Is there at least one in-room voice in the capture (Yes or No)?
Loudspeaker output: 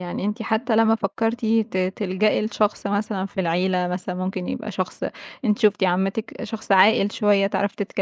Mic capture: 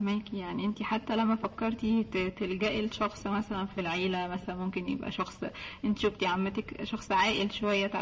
No